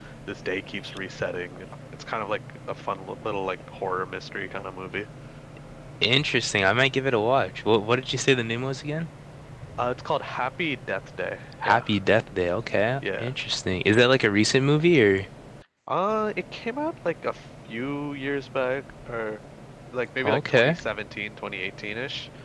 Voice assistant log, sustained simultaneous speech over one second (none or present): none